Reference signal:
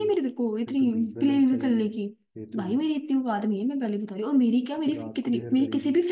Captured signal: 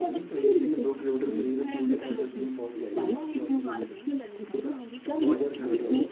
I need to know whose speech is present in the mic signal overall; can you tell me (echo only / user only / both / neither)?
both